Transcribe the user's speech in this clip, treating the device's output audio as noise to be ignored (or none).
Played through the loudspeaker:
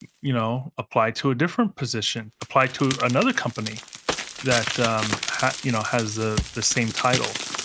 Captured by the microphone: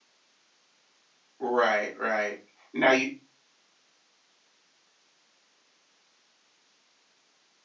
Right. Right. Now you.